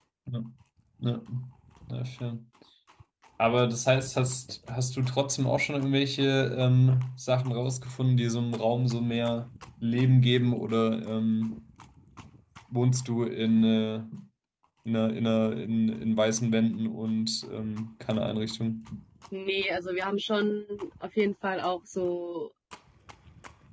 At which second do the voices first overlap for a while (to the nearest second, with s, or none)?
none